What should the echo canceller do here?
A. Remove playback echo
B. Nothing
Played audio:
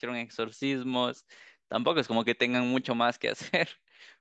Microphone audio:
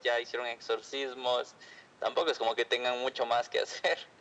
A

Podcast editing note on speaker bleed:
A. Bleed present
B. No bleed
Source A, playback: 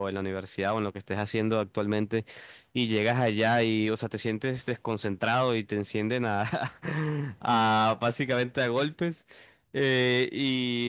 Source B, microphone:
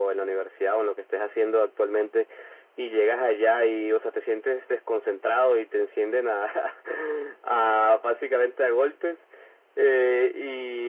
A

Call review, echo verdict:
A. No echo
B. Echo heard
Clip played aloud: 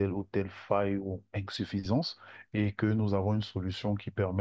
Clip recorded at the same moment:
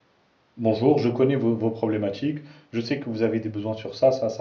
A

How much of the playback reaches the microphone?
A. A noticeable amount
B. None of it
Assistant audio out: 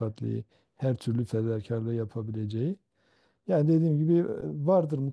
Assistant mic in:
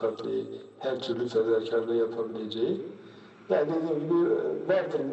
A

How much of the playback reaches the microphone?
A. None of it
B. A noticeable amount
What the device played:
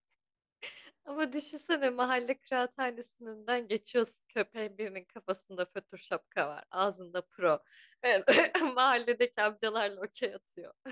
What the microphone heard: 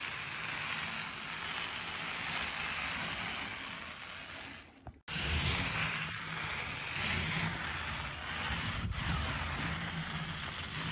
A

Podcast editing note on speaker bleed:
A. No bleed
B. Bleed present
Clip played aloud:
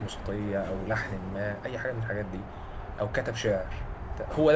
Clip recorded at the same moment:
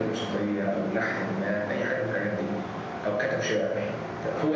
B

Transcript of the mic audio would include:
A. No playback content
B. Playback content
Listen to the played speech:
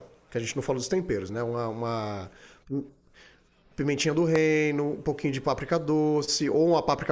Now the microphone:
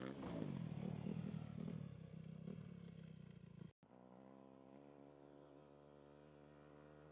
A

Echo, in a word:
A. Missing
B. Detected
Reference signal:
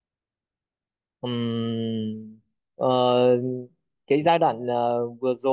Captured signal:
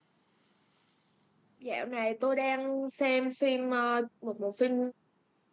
A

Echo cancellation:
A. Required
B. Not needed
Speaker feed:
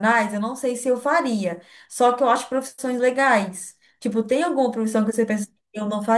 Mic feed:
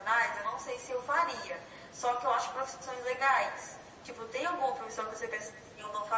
A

